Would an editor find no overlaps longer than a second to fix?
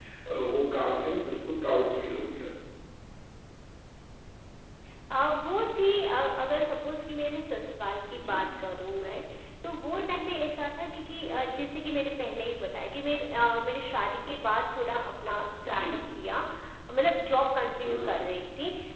Yes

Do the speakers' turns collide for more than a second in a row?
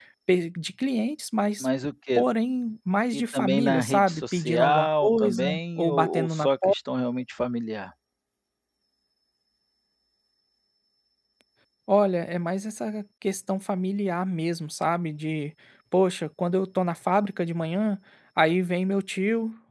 Yes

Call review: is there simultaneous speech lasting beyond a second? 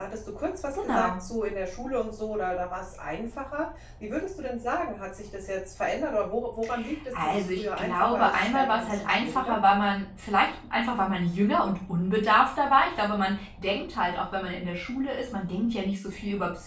Yes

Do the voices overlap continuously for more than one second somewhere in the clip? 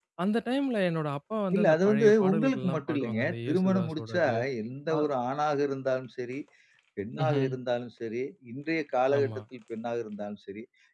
Yes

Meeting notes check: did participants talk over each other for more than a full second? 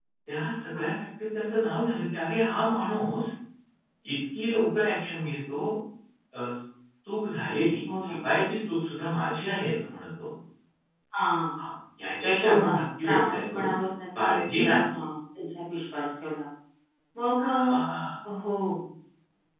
Yes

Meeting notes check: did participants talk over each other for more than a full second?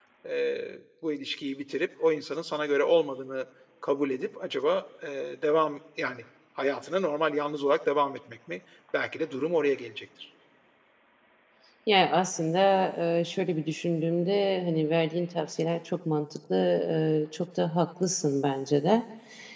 No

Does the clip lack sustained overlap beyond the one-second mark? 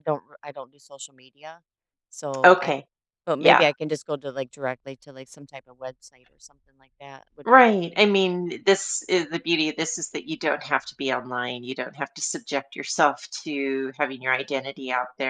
Yes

